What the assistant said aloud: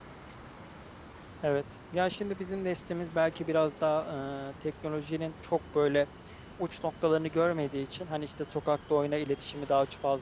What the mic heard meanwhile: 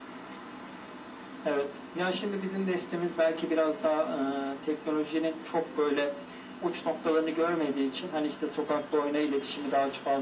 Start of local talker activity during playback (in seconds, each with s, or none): none